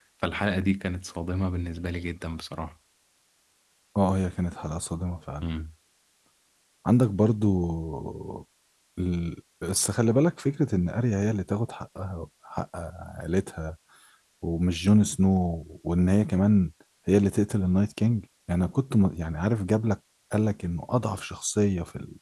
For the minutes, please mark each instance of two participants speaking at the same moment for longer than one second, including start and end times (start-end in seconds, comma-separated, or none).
none